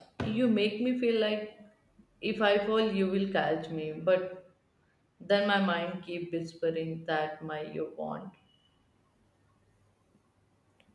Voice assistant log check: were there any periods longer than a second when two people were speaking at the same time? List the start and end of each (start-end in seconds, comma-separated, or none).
none